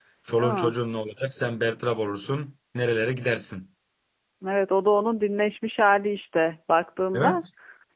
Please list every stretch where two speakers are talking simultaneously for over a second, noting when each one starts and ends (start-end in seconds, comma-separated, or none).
none